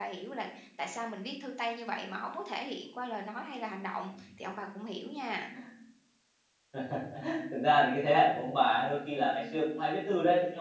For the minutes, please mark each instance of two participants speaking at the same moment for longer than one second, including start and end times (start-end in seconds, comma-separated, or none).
none